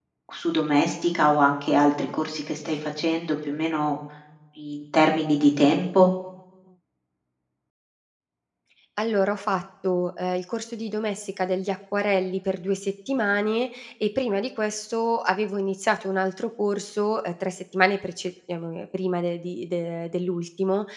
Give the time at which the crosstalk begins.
none

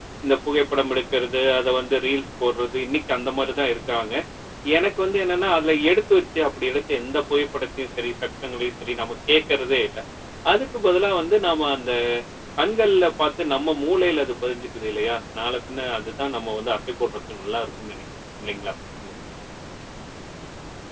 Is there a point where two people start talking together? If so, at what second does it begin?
none

